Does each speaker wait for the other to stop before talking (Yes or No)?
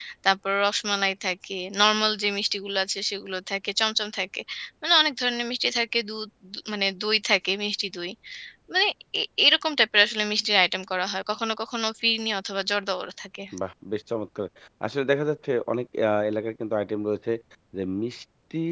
Yes